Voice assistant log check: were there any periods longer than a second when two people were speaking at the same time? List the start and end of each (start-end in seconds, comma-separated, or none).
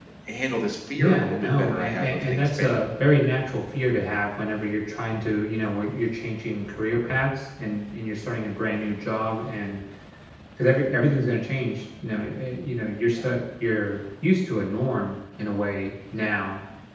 0.9-2.9